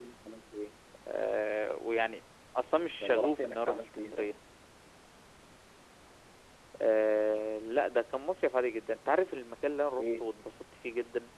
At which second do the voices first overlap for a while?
3 s

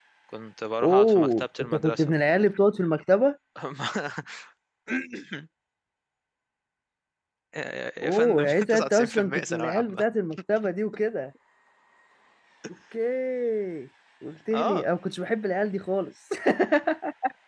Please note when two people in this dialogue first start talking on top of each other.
1 s

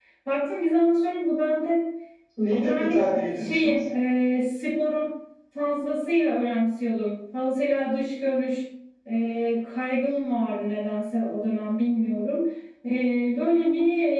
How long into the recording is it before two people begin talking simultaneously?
3 s

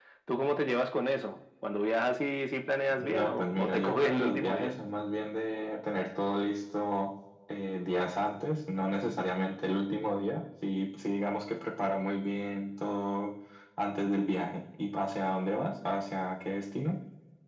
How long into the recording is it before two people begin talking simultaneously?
3 s

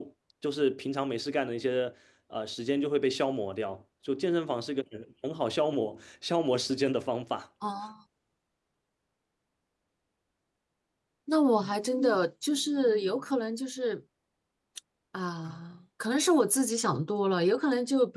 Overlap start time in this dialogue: none

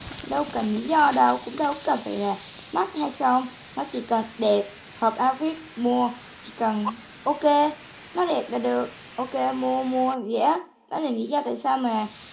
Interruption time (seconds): none

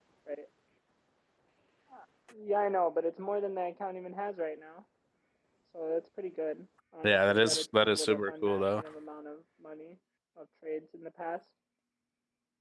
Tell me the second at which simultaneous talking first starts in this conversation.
7 s

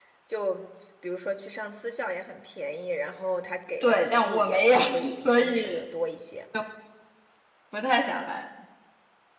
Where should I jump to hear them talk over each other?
4 s

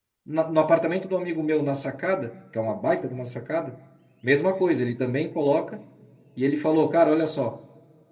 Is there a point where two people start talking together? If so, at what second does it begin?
none

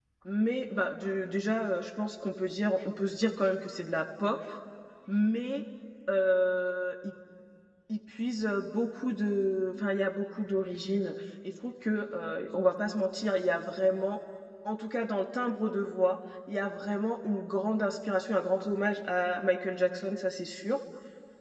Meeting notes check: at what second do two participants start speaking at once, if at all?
none

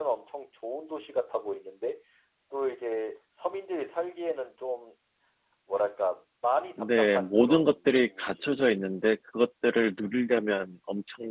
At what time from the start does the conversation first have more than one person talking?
7 s

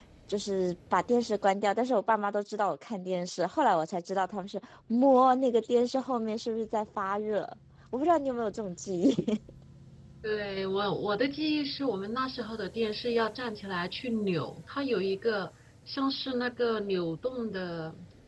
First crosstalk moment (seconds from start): none

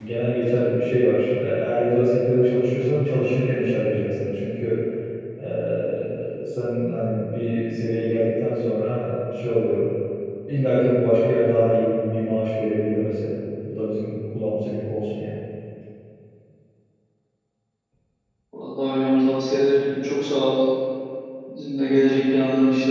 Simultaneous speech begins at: none

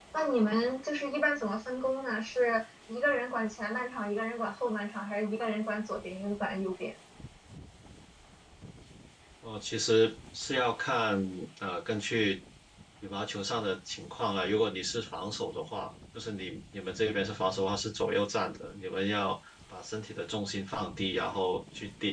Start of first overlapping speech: none

